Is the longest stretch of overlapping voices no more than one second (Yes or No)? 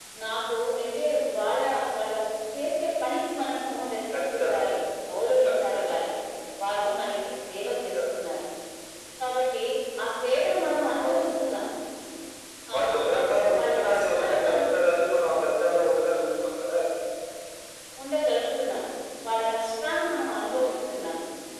No